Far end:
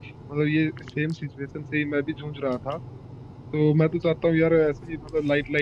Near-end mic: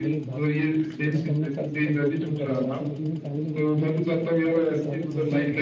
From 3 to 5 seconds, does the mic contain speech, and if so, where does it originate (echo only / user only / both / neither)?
both